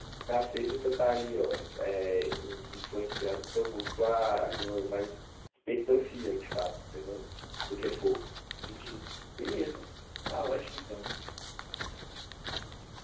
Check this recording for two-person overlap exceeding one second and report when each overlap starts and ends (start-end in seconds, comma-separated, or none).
none